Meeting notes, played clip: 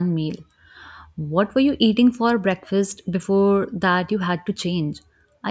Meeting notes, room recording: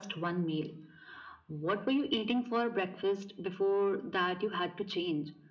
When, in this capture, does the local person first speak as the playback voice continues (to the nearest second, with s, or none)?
none